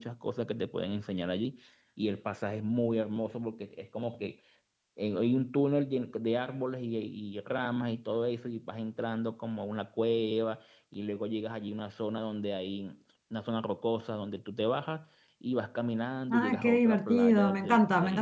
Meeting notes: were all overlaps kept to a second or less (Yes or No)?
No